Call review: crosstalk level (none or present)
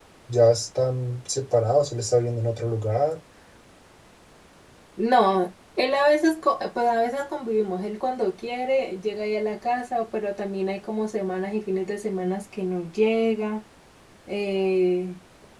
none